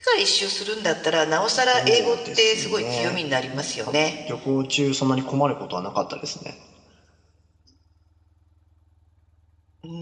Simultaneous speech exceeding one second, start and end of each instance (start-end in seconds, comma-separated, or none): 1.7-3.2